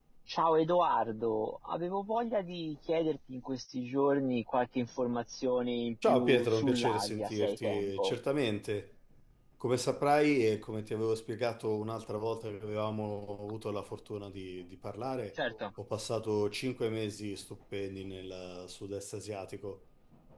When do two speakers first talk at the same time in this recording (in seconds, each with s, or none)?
6.1 s